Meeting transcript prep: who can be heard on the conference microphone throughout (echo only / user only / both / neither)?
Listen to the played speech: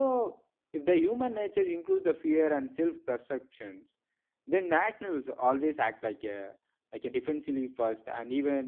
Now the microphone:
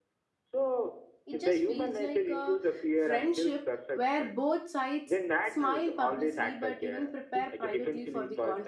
both